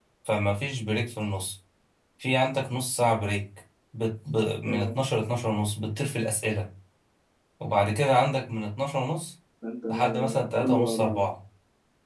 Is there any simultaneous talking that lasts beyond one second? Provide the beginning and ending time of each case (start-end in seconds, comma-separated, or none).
9.9-11.2